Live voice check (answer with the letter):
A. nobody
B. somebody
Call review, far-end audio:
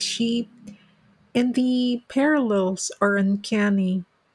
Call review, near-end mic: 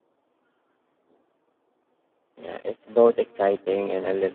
B